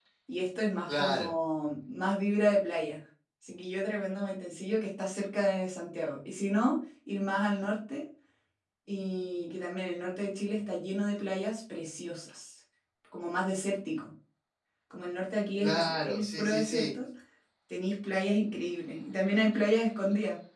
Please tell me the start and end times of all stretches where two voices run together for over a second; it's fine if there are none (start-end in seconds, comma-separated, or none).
15.6-16.9